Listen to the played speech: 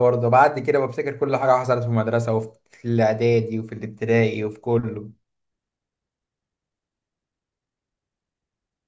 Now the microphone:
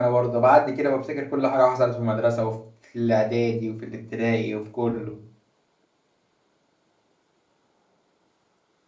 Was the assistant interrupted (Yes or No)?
No